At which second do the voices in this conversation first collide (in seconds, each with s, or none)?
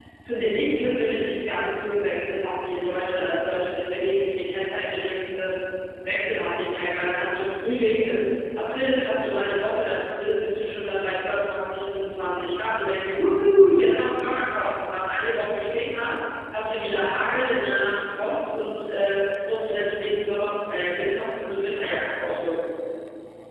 none